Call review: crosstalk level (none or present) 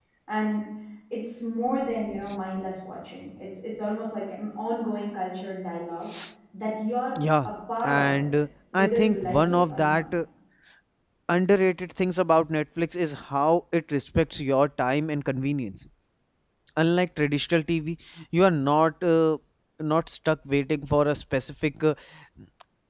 present